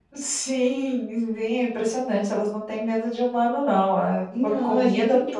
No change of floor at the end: No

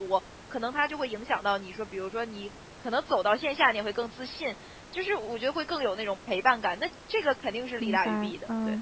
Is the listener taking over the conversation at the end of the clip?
Yes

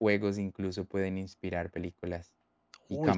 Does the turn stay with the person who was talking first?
No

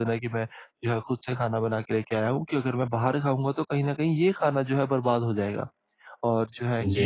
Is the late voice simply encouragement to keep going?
Yes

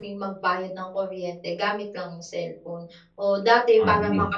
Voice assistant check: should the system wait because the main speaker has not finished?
Yes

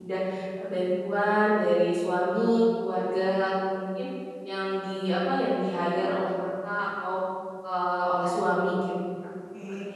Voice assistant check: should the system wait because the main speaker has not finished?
No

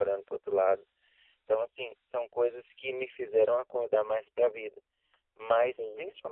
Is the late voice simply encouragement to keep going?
Yes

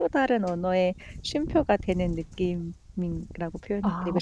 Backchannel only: No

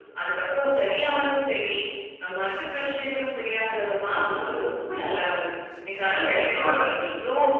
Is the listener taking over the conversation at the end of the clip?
No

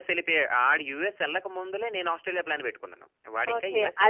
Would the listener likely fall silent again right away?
No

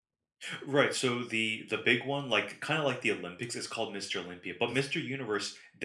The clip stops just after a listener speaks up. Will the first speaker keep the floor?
Yes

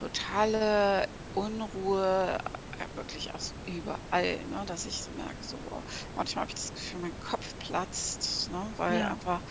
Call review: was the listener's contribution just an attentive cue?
Yes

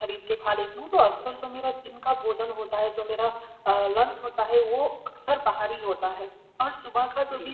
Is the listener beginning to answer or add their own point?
No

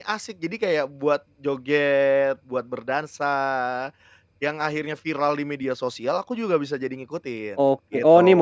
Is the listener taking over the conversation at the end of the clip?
Yes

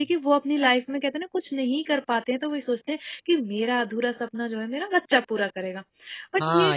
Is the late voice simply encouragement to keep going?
No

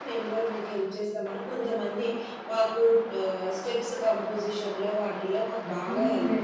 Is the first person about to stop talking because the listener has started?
Yes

